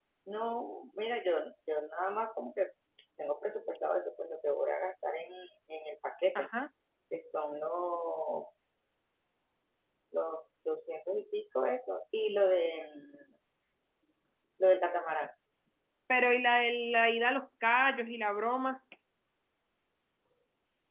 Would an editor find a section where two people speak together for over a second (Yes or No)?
No